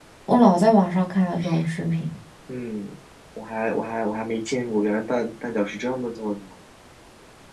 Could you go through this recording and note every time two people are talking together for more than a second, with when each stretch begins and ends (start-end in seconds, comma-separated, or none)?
none